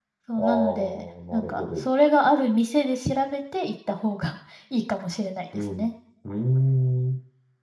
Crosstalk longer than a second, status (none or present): present